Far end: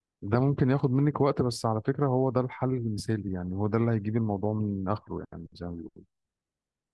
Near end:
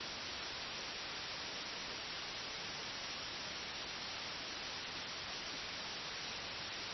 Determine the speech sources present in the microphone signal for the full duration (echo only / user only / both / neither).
neither